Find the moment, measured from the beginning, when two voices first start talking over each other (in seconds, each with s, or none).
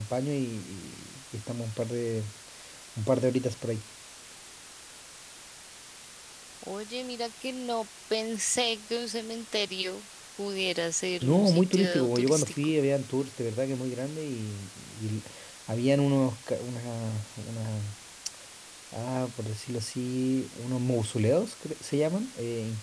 11.2 s